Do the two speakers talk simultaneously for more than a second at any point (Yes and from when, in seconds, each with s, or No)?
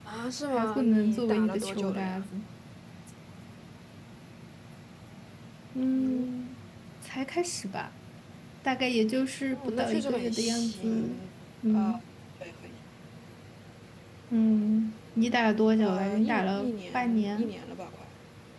Yes, from 0.6 s